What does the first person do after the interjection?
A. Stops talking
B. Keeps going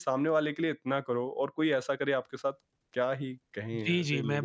A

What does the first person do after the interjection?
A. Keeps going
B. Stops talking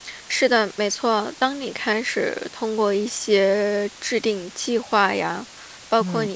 A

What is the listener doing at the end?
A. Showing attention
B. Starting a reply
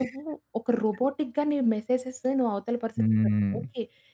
A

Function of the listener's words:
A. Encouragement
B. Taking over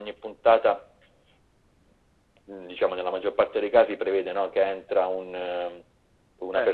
A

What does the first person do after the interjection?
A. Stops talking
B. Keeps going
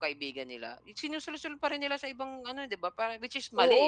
A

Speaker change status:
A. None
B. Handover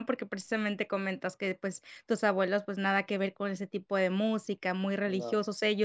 A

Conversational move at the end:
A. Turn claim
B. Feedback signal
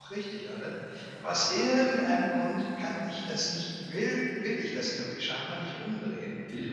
B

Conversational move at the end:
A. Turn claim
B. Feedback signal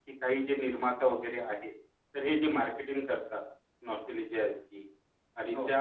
B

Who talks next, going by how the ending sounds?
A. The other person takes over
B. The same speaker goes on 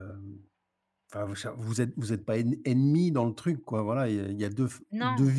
B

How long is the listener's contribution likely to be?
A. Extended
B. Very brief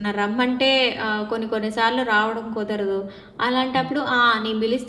B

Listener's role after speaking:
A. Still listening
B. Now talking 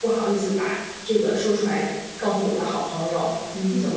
A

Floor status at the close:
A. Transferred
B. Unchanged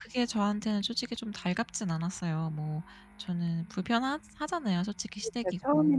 A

